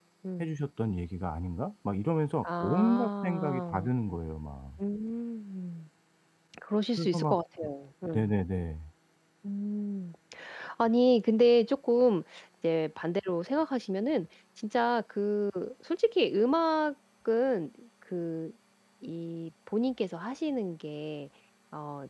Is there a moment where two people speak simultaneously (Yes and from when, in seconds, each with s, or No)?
Yes, from 2.4 s